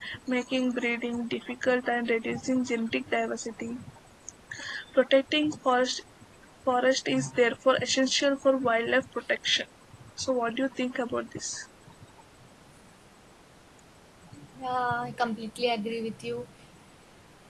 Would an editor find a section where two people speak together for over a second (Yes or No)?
No